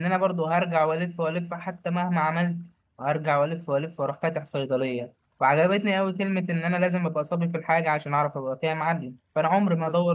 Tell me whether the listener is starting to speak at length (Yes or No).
No